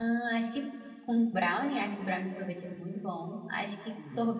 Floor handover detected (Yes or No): No